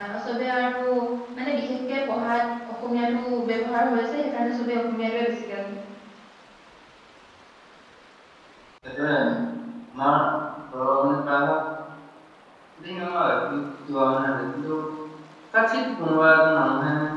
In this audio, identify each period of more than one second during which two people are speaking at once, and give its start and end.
none

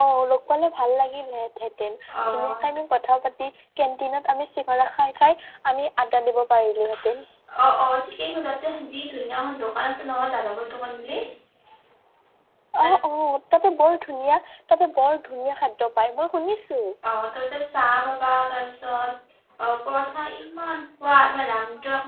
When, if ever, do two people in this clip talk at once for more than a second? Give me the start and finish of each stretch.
none

